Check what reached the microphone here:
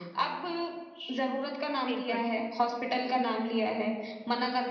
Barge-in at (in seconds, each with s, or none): 1.9 s